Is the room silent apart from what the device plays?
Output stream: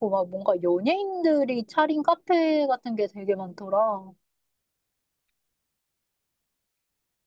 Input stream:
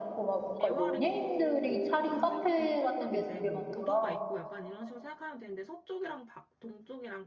No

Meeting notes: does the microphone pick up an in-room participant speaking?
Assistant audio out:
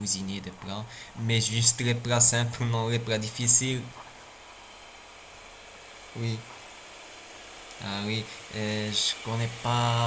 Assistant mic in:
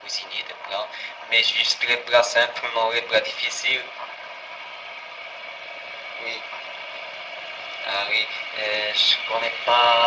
No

